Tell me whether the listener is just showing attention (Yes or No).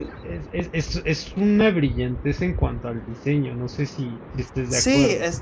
No